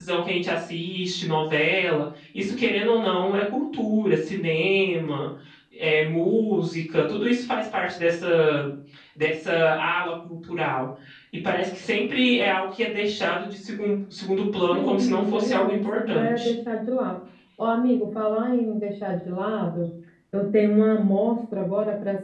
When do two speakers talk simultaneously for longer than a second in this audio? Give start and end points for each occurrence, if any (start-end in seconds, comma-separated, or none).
14.7-16.5